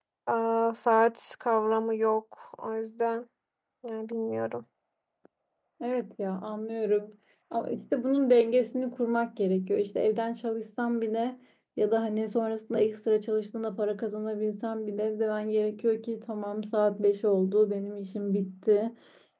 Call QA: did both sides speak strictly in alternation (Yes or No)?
Yes